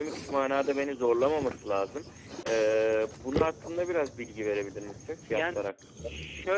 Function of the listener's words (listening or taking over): taking over